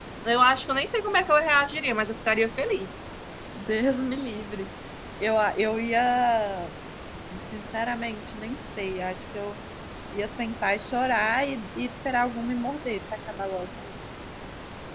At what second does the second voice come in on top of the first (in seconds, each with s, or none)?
none